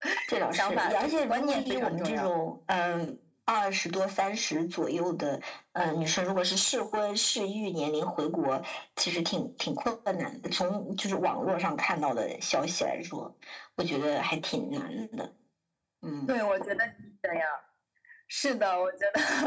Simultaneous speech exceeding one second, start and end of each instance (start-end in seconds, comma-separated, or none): 0.5-2.3